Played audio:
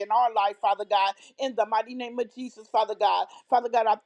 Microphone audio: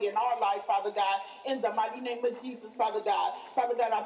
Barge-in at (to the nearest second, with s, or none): none